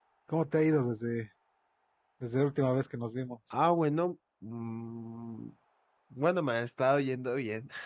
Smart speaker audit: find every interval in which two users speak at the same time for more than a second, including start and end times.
none

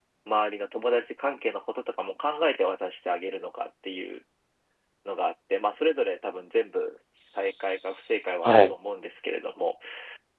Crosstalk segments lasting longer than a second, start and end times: 7.2-8.7

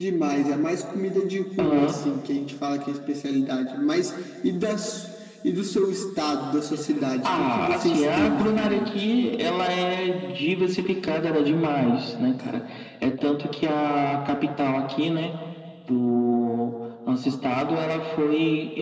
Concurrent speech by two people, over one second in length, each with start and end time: 7.2-8.9

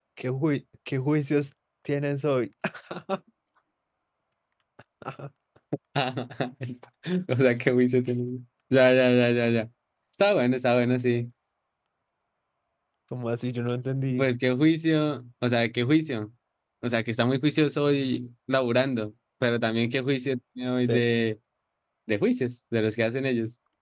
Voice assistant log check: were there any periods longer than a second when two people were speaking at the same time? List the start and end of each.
none

